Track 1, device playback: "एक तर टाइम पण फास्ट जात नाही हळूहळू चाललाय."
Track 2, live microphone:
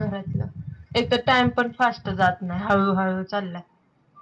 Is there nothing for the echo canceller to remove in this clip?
No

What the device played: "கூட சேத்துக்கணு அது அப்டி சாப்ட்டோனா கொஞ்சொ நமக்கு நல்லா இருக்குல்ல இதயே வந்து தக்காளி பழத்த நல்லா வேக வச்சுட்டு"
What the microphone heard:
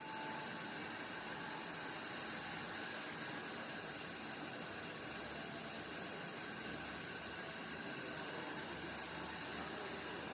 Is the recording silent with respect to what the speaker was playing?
Yes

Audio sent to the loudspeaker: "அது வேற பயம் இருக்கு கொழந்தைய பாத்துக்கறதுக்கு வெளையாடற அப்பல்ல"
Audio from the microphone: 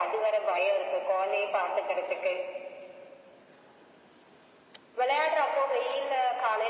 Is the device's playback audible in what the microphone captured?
Yes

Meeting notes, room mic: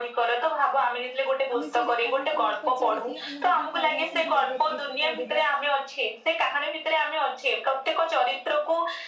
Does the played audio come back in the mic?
Yes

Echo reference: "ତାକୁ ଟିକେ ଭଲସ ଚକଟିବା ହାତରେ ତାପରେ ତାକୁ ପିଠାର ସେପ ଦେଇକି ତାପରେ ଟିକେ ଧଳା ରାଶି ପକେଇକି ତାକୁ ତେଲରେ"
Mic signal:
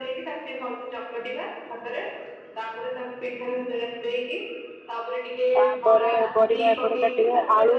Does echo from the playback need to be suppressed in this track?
Yes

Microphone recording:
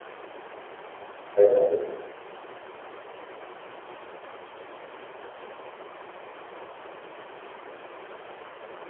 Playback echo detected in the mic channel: No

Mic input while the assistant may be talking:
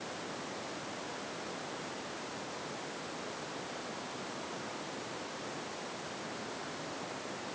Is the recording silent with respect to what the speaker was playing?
Yes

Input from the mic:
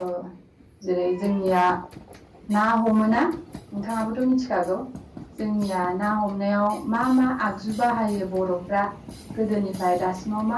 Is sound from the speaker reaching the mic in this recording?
No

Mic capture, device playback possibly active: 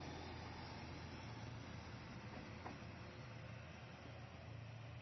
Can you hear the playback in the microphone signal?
No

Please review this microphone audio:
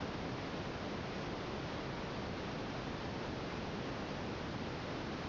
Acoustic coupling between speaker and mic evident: No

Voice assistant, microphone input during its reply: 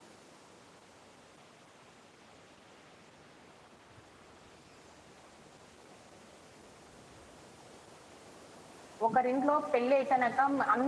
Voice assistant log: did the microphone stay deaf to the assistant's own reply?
Yes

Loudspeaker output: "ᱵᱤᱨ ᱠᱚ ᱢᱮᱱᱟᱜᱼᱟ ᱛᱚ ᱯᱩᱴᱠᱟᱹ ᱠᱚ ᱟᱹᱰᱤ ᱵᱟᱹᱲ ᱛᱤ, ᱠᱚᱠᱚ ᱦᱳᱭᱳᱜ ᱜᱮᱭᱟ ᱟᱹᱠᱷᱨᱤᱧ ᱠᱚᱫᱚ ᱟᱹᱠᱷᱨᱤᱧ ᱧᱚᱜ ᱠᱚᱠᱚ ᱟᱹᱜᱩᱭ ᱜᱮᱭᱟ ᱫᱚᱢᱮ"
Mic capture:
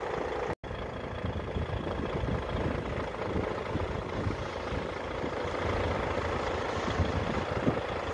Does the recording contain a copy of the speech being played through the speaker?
No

